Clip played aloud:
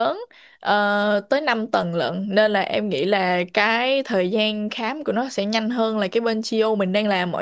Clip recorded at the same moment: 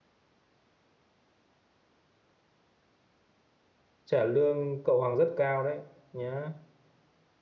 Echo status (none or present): none